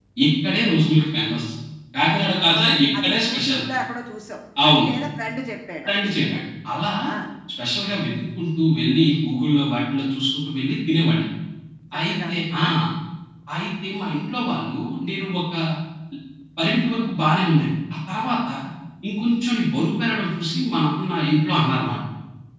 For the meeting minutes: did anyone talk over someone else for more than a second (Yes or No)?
Yes